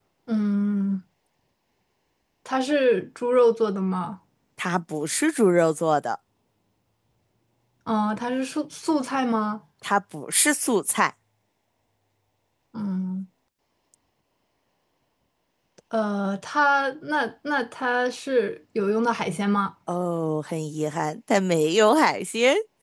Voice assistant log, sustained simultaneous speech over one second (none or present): none